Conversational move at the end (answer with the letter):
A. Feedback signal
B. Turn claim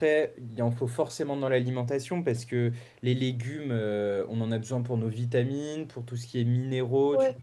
A